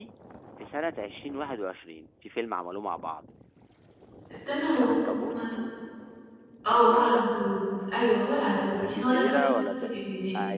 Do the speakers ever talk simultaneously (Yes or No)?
Yes